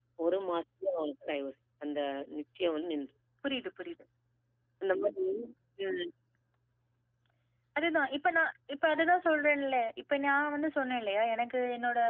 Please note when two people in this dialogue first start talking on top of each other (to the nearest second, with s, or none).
none